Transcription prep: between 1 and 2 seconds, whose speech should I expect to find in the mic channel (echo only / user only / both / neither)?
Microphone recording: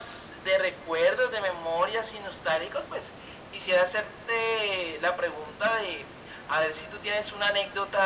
echo only